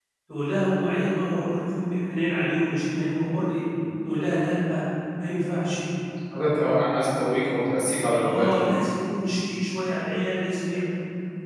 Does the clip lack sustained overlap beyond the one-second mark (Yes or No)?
Yes